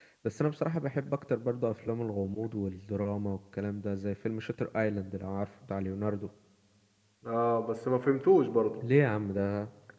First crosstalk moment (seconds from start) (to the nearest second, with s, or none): none